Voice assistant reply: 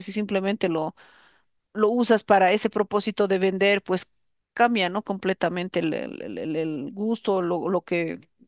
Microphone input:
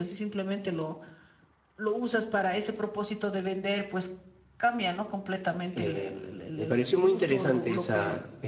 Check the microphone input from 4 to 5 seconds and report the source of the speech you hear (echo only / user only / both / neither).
echo only